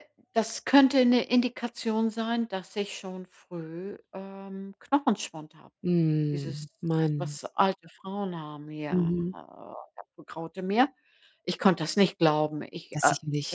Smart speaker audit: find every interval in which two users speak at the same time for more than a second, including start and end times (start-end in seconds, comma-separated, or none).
none